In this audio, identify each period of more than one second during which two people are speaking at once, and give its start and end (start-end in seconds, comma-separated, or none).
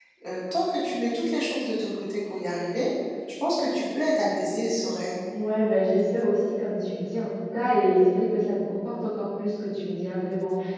none